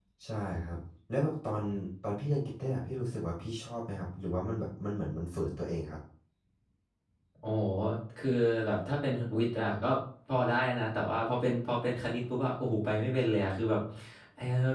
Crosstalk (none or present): none